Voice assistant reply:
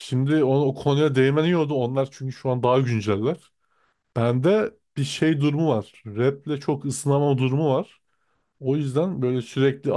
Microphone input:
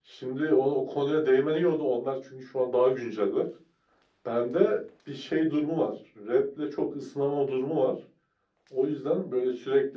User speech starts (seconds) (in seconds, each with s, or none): none